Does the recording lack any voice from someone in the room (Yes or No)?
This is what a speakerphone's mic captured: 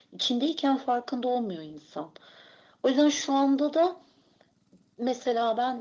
Yes